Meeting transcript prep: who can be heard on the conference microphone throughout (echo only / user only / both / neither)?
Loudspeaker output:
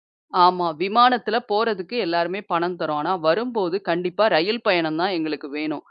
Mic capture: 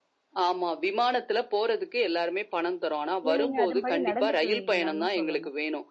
both